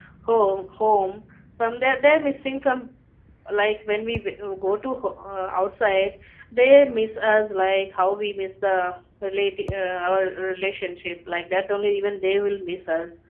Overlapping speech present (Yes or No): No